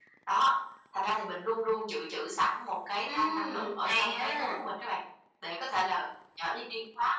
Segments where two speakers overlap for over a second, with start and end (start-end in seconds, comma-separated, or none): 3.0-4.5